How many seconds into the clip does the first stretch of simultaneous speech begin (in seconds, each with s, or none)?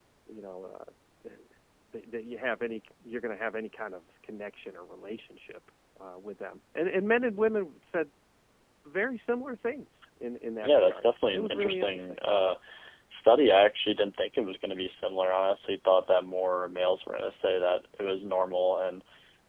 10.6 s